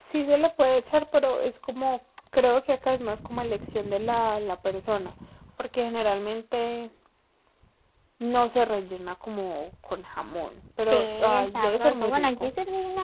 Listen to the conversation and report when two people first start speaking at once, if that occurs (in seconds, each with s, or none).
10.8 s